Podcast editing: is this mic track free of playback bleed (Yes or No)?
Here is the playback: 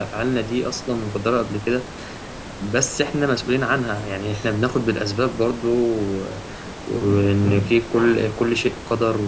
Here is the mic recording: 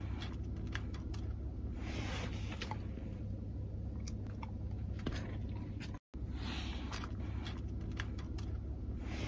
Yes